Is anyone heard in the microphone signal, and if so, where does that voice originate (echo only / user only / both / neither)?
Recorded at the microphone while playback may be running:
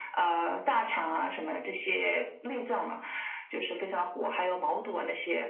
echo only